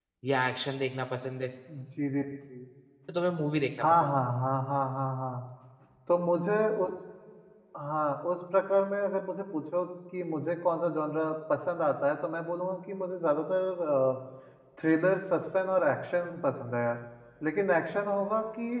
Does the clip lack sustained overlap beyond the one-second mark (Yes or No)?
Yes